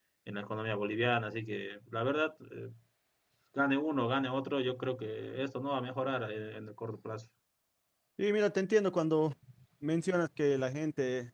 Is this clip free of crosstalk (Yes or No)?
Yes